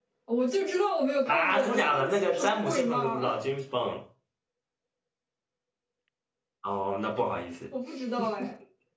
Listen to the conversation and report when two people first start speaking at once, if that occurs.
1.3 s

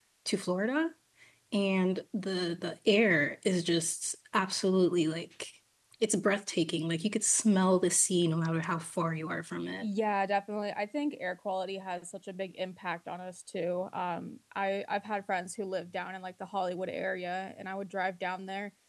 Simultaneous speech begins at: none

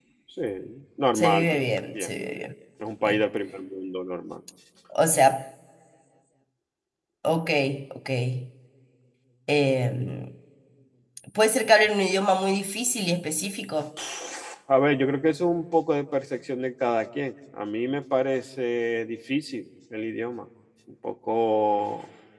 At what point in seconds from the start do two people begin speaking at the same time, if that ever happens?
1.2 s

